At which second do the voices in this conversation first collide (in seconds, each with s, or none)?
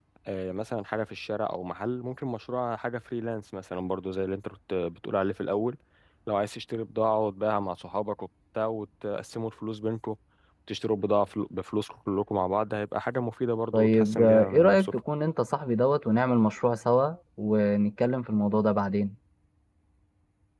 13.7 s